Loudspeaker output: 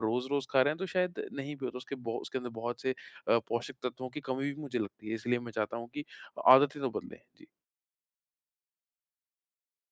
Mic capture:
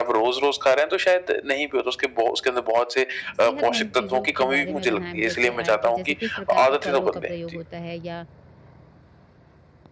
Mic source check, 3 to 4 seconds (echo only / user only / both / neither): both